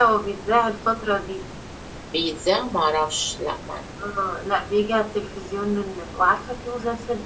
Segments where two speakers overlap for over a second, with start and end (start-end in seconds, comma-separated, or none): none